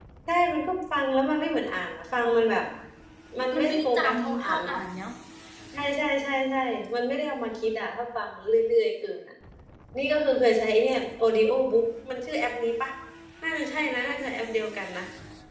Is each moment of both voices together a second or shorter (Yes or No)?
No